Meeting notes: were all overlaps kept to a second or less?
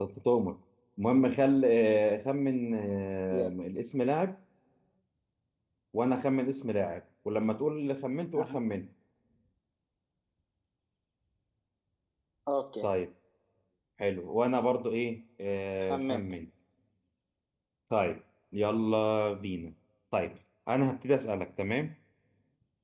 Yes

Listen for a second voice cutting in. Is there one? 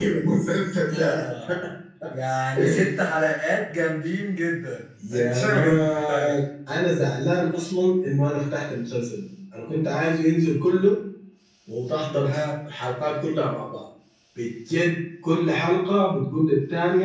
Yes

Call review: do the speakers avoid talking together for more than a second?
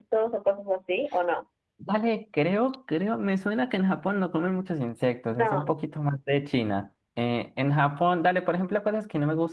Yes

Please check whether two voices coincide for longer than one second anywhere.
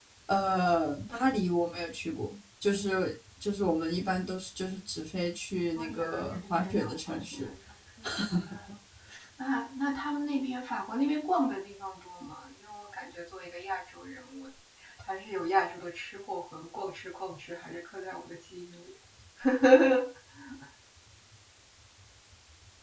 Yes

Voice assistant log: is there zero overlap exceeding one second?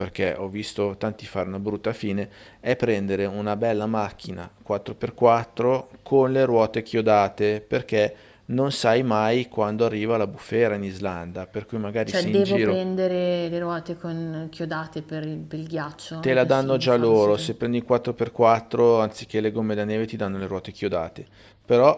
No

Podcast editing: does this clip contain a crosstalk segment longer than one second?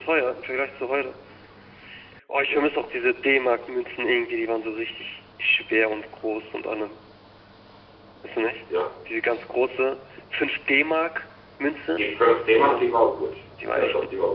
No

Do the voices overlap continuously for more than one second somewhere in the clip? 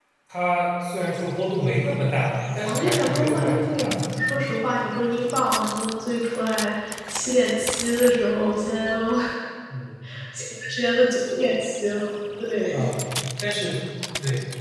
Yes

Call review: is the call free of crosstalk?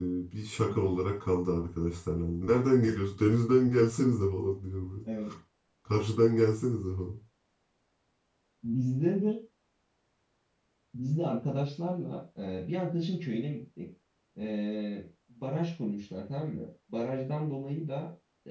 Yes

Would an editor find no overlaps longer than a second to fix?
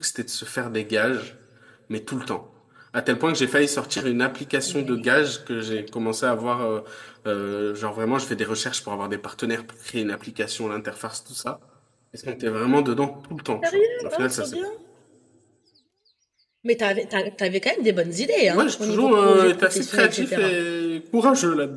No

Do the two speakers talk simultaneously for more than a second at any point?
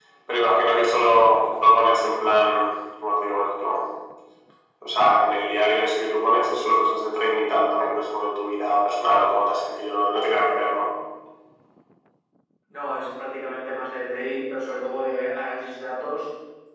No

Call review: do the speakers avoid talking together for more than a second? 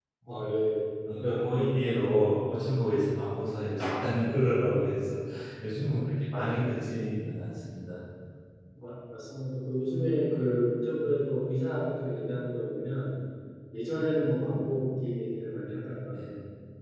No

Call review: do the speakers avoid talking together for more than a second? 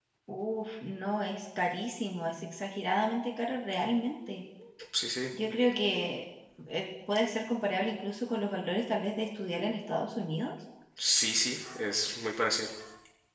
Yes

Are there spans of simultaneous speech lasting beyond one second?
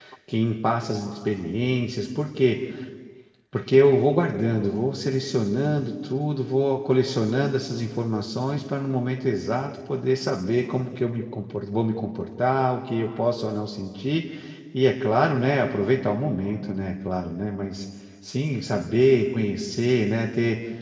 No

